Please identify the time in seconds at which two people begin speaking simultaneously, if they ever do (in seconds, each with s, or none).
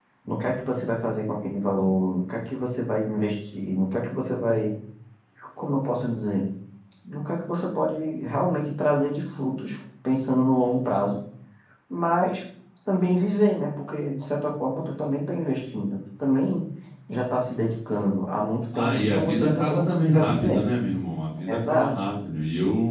18.8 s